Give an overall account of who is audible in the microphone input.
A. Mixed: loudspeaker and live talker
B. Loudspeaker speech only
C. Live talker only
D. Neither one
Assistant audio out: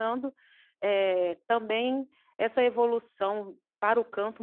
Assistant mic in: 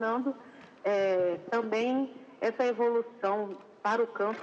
B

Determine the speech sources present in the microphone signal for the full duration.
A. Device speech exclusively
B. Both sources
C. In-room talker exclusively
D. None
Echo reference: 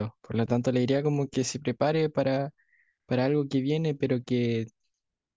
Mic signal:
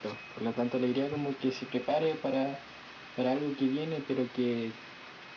A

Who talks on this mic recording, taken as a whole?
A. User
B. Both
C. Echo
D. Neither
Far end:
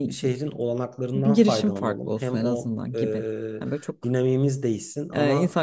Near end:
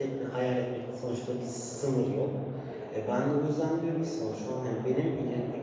A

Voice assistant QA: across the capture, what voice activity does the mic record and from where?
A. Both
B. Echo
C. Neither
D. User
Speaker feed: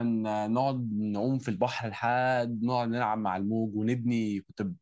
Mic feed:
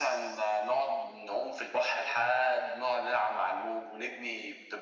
B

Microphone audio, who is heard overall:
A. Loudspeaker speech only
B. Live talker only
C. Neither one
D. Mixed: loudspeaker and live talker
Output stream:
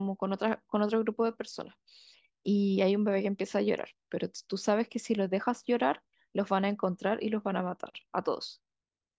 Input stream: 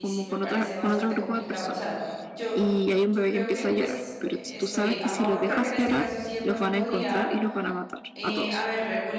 D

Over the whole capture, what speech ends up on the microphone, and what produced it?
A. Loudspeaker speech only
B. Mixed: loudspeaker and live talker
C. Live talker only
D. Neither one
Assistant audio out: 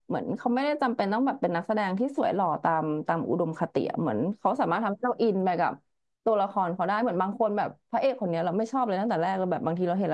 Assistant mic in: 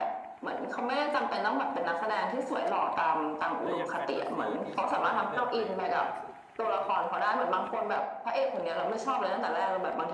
B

